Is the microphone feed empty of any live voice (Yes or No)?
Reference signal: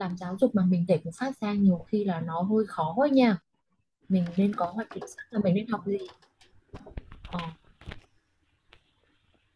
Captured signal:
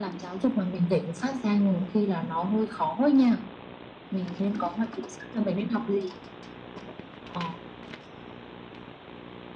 Yes